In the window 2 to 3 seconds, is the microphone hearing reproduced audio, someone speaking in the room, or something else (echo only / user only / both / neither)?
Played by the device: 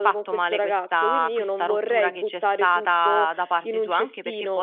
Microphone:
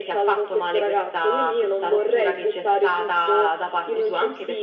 echo only